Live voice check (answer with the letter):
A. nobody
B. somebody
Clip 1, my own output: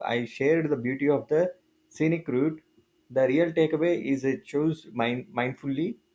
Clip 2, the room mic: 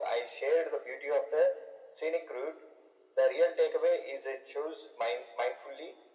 A